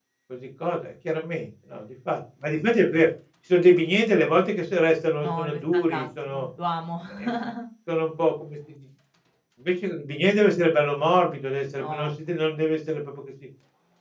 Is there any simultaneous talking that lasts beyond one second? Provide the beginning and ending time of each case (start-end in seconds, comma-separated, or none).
5.2-6.5